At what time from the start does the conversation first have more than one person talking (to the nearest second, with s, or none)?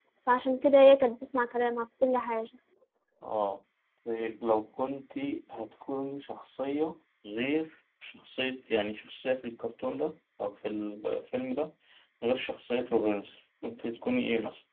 none